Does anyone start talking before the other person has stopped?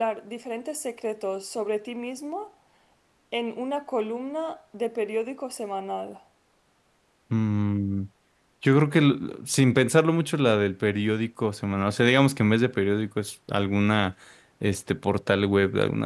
No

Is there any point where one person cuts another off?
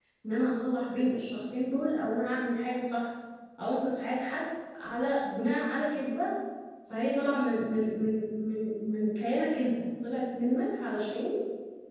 No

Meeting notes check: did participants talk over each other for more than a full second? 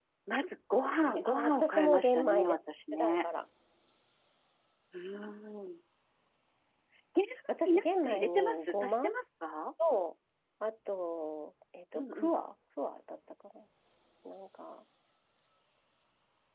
Yes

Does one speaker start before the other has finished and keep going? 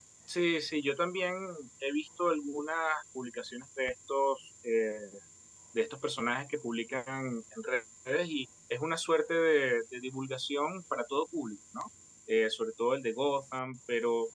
No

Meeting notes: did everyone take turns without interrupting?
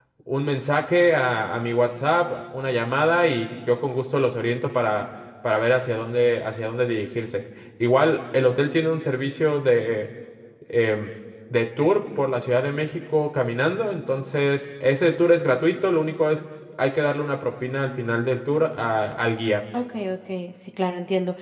Yes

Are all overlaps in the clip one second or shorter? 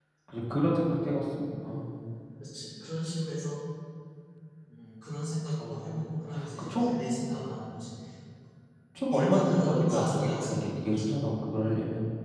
No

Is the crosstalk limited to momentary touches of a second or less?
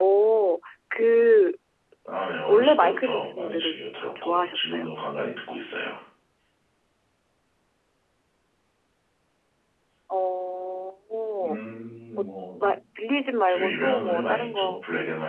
No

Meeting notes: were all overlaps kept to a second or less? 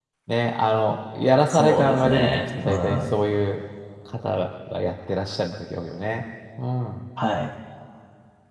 No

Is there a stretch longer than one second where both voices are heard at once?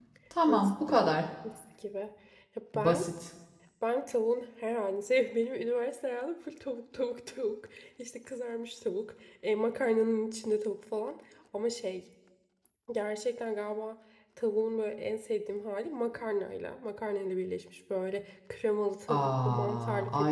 Yes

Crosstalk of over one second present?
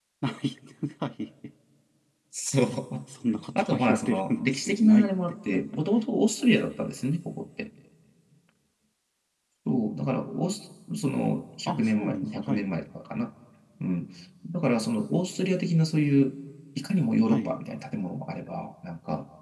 Yes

